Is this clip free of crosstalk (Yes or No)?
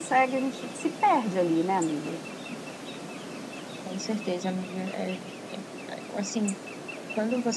Yes